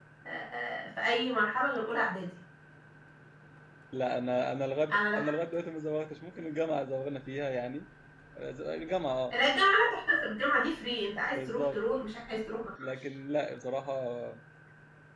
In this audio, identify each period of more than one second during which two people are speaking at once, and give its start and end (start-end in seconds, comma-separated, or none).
none